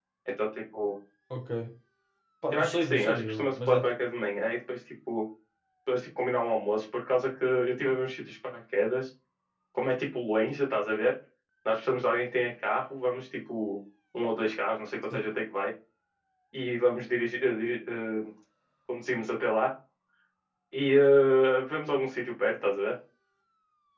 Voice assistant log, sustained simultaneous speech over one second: present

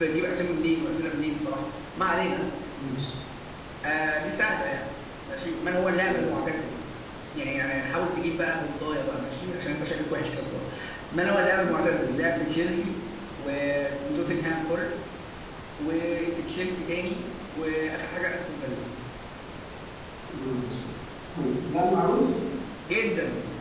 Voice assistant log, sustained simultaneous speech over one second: none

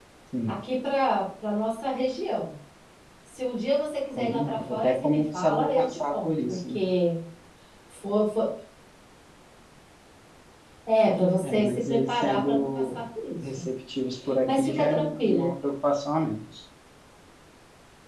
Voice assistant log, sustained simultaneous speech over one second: present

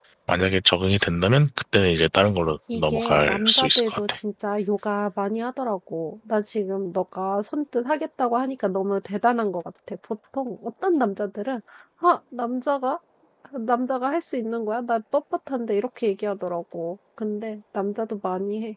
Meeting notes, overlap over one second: present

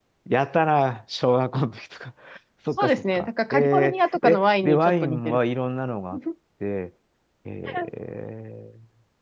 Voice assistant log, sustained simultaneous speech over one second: present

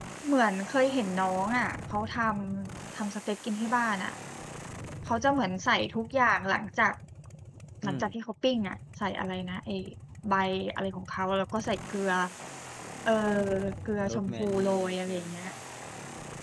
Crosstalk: present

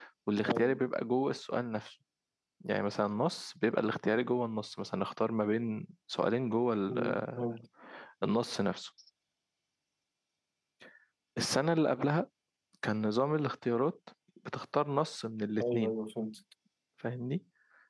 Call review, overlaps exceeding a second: none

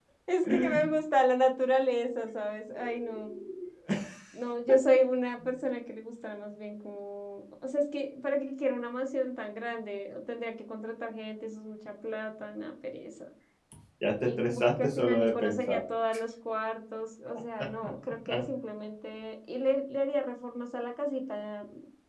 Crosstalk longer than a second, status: present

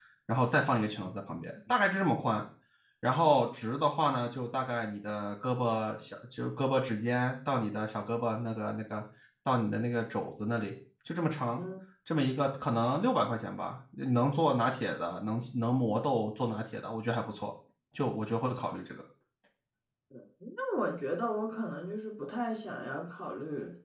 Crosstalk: none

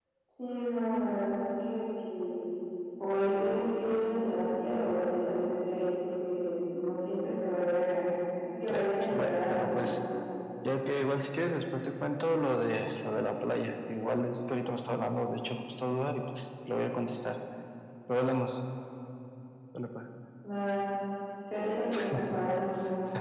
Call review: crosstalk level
present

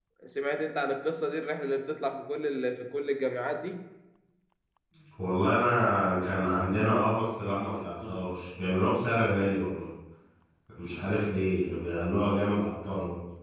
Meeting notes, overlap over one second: none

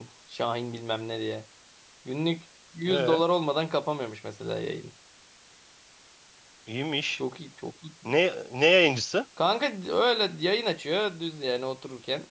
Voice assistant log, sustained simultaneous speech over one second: none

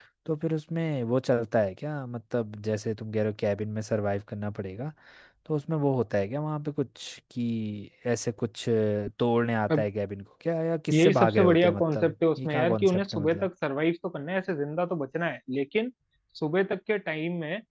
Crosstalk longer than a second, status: present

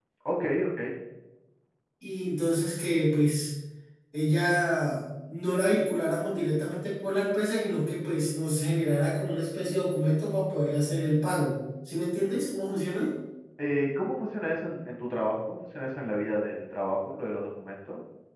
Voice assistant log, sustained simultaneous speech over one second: none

